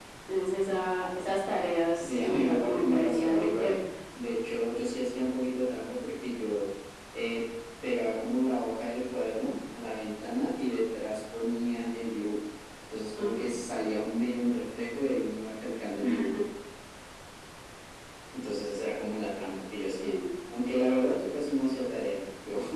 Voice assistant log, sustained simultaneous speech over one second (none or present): present